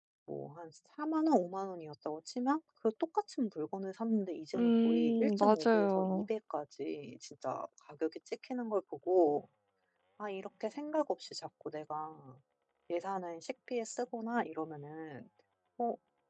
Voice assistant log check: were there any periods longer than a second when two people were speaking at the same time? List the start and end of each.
4.5-6.2

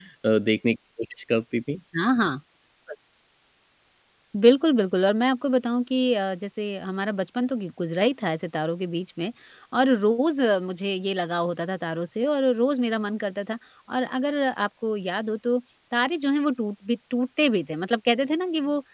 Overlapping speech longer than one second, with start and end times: none

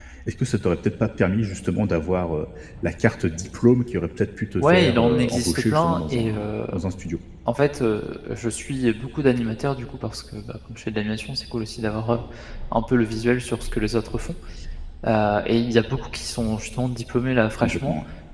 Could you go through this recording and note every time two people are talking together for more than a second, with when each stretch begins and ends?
4.6-6.3

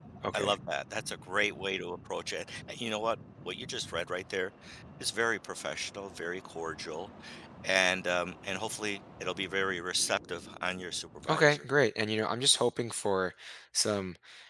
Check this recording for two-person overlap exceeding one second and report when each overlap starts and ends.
none

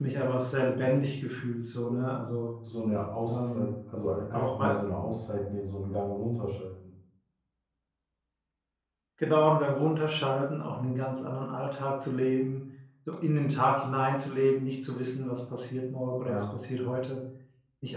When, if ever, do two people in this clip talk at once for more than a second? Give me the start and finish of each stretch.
none

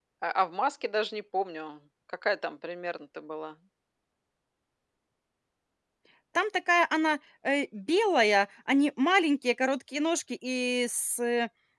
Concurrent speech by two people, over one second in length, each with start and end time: none

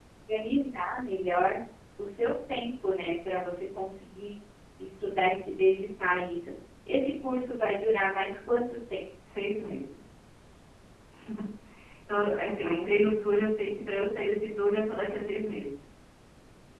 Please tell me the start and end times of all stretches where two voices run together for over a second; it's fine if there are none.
none

